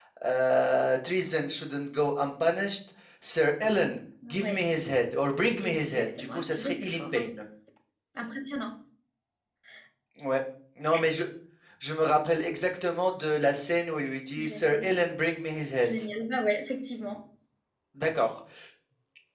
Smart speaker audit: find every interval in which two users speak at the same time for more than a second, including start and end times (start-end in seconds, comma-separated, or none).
5.6-7.2